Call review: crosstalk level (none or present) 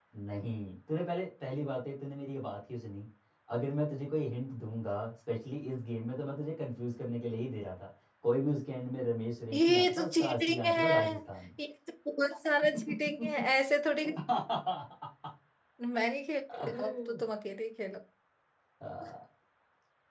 present